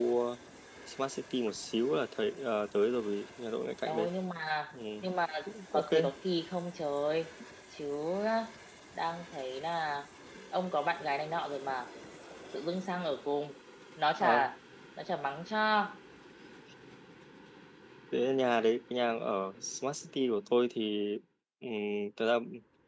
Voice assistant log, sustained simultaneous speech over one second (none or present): none